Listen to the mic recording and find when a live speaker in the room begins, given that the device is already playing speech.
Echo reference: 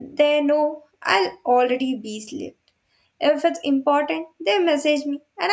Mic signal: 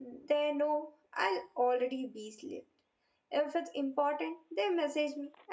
none

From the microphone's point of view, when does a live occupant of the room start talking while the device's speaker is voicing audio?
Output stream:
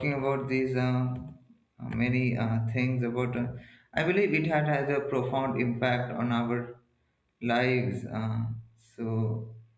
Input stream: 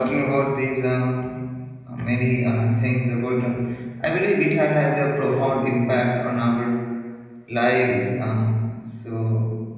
none

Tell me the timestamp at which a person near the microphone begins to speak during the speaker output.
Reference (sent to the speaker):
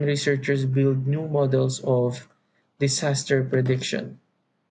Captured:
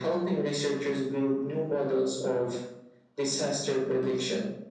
none

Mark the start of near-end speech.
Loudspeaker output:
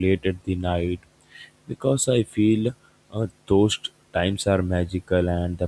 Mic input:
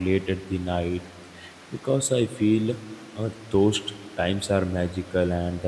none

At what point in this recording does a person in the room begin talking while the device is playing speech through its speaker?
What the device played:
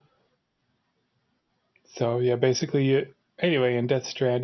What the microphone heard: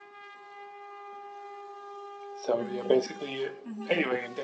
2.6 s

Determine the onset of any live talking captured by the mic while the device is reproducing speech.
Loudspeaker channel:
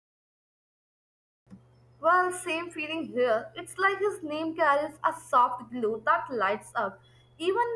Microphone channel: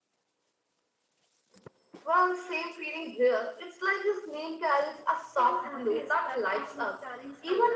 5.3 s

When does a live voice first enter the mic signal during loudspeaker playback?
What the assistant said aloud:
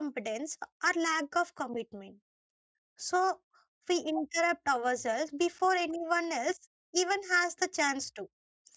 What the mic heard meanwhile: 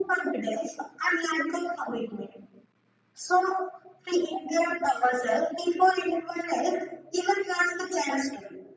none

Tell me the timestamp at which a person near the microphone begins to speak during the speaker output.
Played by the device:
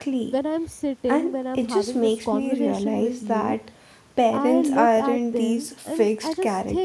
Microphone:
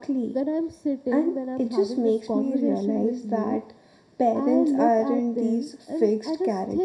none

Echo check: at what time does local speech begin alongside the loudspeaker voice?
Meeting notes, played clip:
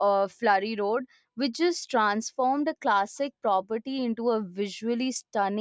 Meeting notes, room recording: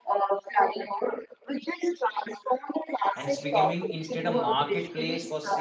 3.1 s

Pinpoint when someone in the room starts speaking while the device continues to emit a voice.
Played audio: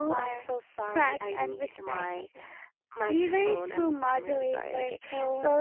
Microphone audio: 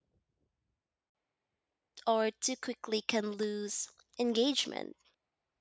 2.0 s

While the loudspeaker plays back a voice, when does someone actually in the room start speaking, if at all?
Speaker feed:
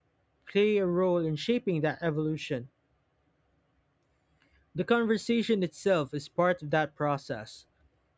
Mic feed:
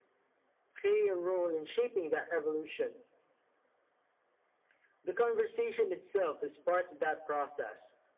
none

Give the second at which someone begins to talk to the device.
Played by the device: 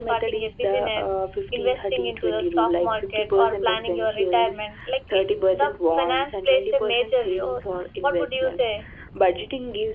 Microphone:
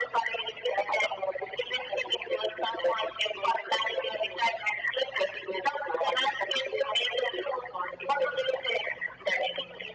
none

